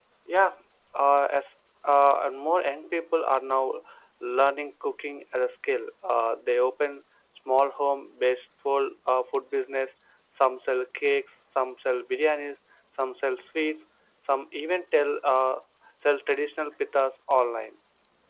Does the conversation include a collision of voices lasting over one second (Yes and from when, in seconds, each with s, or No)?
No